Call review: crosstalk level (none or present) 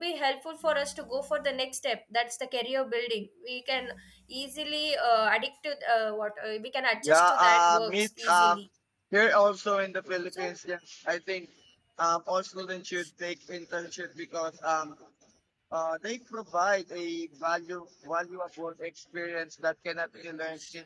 present